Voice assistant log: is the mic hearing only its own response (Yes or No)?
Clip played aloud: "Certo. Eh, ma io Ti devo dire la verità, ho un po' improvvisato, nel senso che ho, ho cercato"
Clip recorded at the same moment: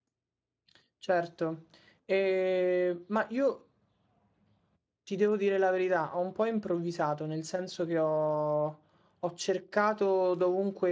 Yes